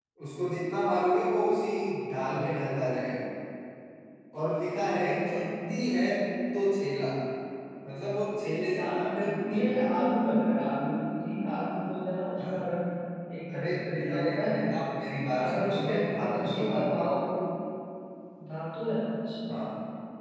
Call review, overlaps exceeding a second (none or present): present